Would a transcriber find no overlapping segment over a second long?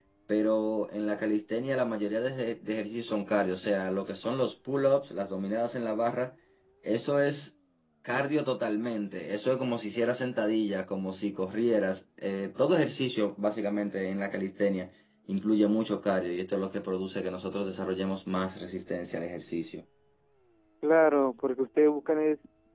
Yes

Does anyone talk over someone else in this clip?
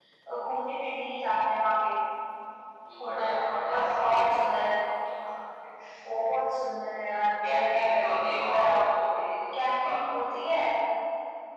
Yes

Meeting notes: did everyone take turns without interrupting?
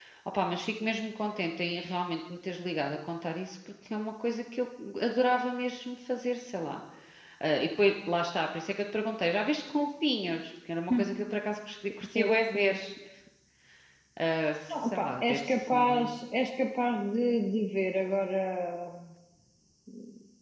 No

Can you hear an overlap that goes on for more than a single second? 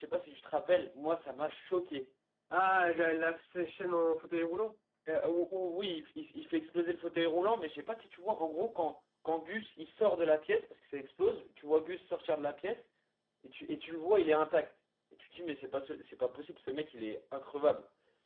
No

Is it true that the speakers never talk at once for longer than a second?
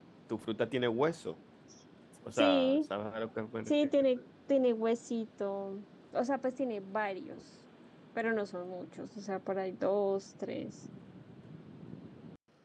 Yes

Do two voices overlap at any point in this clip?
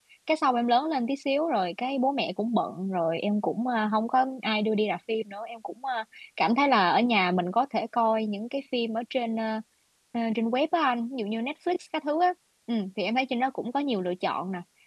No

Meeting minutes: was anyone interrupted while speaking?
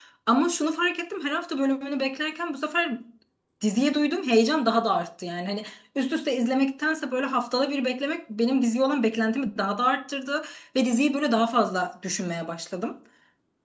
No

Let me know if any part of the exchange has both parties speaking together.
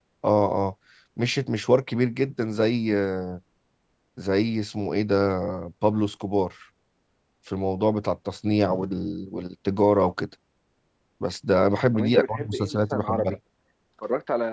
Yes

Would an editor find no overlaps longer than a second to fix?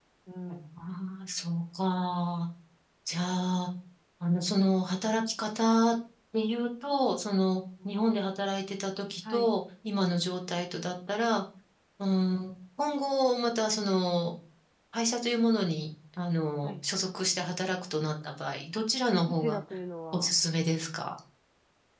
Yes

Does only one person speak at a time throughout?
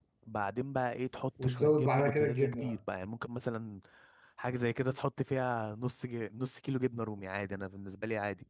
No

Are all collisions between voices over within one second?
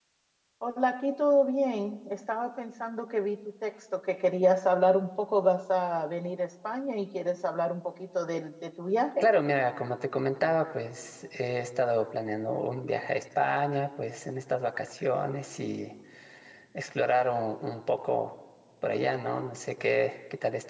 Yes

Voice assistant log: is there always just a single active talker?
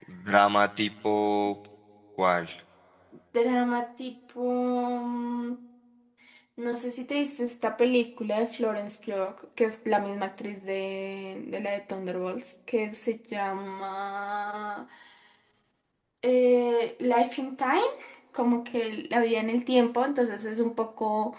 Yes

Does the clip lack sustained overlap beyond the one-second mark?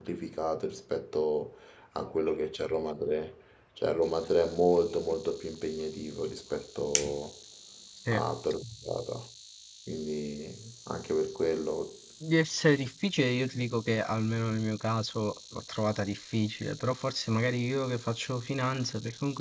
Yes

